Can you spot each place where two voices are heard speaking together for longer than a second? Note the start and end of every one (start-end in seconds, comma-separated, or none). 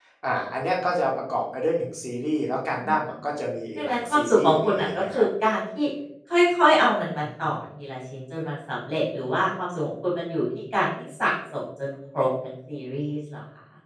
3.8-5.2